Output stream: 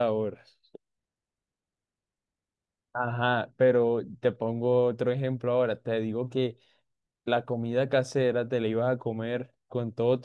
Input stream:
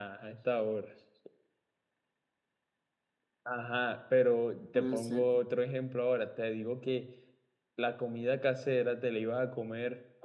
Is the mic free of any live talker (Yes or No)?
No